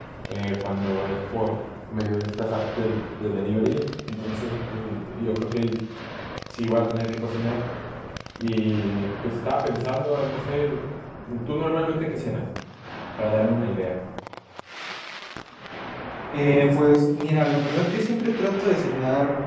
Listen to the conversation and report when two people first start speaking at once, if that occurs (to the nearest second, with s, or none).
none